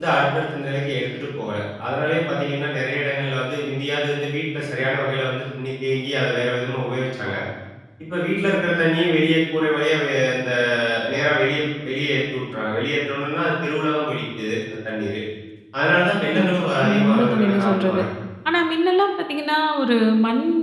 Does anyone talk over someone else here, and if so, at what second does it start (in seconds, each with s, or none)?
16.4 s